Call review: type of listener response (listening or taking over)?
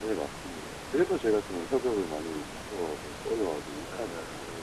taking over